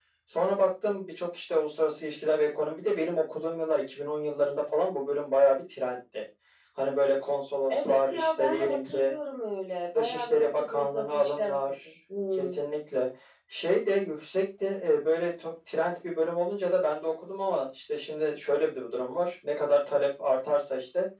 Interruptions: present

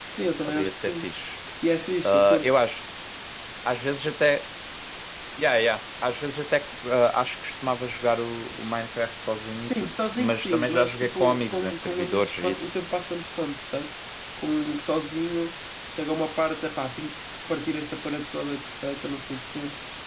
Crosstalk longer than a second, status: present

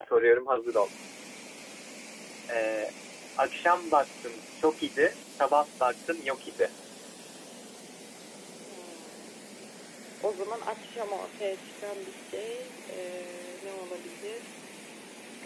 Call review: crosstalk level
none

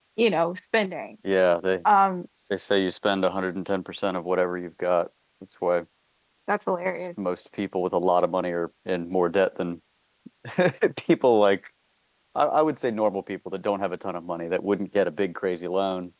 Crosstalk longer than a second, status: none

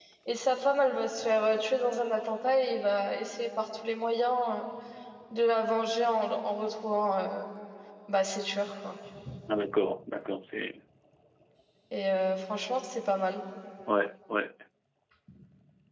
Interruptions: none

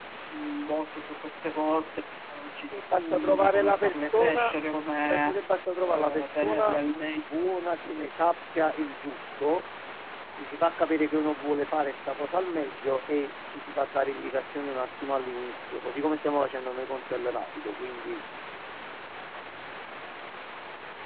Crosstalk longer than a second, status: present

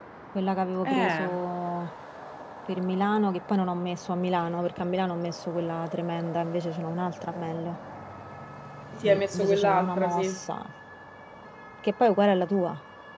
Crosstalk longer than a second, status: present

